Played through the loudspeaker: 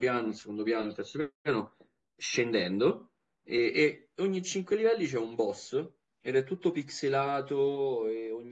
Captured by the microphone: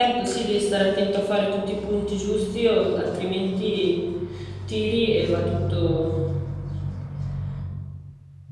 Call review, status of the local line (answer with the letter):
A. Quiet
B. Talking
B